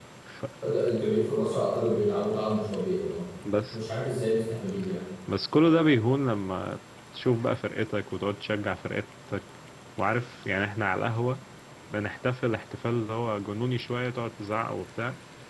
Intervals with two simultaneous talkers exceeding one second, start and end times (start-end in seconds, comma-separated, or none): none